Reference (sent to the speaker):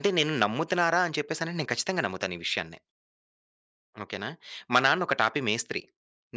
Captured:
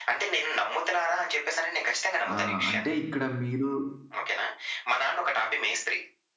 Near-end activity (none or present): present